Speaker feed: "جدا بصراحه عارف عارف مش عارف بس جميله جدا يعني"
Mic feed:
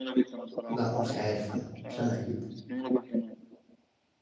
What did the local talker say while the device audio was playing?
لا مش عارف ما. مش انا اكيد

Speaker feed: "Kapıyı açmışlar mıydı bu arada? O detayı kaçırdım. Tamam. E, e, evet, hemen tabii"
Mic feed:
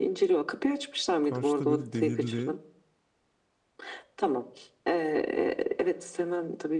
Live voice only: karşıda böyle demirli

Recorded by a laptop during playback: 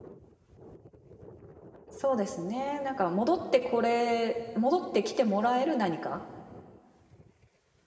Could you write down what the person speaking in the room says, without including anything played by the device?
そうですねなんか戻ってこれ戻ってきてもらえる何か

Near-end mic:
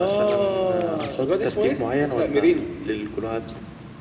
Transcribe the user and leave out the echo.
none

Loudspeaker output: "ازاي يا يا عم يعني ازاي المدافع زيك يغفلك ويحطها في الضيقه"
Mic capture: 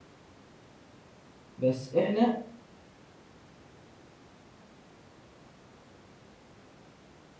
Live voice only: بس احنا

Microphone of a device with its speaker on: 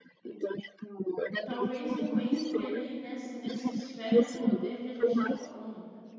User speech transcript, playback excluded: talvez não entre ali nessa, nessa esfera de poder que a gente está falando.

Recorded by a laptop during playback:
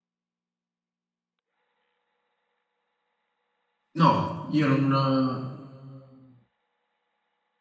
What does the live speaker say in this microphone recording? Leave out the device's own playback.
No, io non.

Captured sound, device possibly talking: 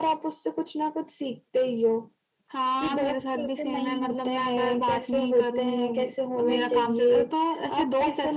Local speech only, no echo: हम्म।

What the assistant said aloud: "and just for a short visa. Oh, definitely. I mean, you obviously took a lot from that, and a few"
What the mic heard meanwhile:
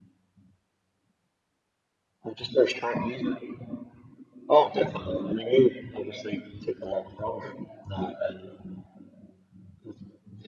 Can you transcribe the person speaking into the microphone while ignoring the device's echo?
none

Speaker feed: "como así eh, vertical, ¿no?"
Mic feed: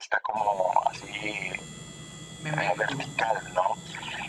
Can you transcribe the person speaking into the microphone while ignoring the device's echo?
Memento.

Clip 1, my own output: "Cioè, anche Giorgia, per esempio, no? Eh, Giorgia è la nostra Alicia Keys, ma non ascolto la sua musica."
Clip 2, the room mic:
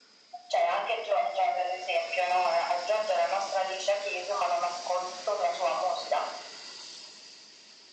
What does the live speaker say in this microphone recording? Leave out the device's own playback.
none

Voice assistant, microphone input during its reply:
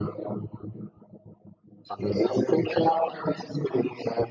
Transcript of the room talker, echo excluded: none

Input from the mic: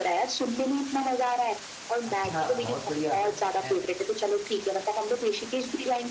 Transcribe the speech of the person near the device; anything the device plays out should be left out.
अच्छा बहुत बढ़िया ए,

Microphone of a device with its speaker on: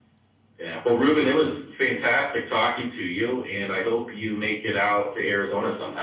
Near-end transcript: none

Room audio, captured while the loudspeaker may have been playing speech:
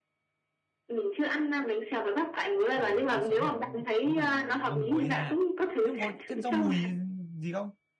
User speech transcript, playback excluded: ừ ăn sống phải ngu- tí thì ngâm muối ra nhưng có thêm rau mùi gì không

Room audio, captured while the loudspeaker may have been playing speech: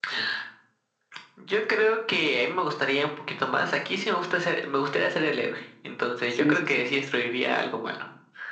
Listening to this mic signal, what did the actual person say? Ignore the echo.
sí, sí, sí.

